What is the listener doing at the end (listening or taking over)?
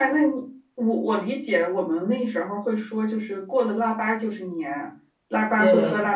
listening